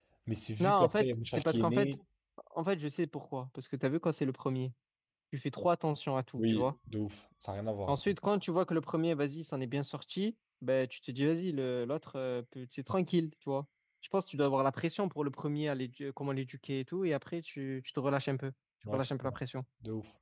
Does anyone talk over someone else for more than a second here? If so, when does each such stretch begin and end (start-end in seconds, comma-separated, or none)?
0.6-1.9